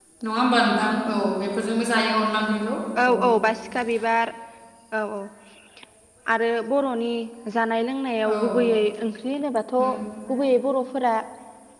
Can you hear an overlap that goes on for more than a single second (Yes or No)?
No